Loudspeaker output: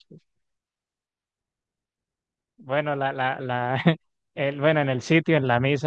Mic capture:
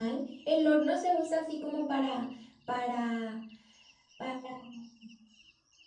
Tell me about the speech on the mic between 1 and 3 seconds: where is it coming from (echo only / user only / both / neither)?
user only